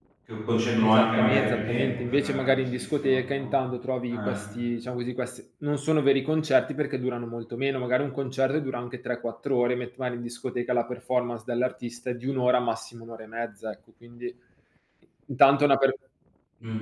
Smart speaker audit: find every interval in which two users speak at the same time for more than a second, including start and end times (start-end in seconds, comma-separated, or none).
0.8-3.5